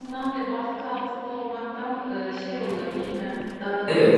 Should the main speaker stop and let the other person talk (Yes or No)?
Yes